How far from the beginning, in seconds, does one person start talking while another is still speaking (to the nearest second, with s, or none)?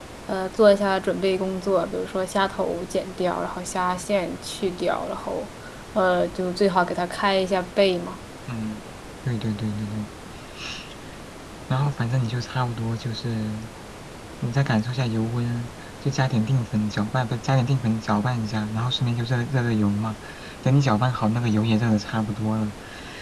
none